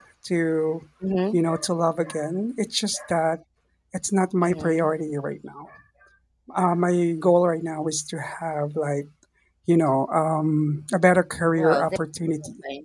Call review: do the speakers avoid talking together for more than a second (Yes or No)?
Yes